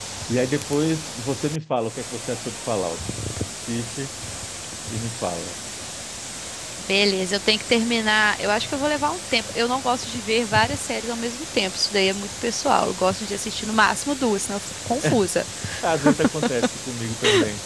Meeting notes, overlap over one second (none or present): none